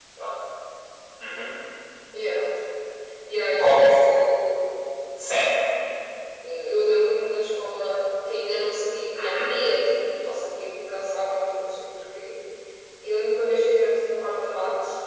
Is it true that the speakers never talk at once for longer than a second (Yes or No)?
Yes